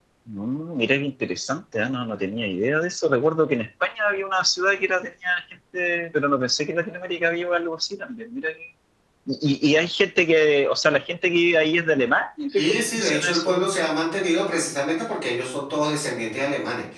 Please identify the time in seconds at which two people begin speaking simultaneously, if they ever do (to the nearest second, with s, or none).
12 s